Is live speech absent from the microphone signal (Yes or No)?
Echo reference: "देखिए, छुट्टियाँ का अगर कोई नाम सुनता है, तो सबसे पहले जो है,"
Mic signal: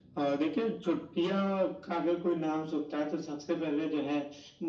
Yes